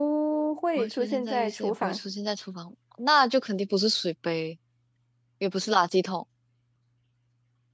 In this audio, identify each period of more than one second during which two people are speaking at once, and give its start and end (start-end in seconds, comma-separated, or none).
0.8-2.0